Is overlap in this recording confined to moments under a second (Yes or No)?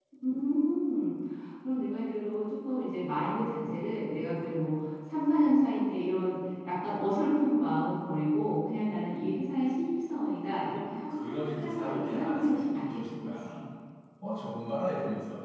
No